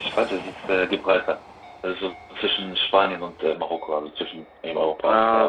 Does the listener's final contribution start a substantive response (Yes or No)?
Yes